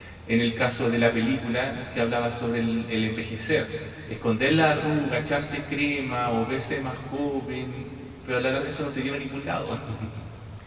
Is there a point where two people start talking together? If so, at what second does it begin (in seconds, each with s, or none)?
none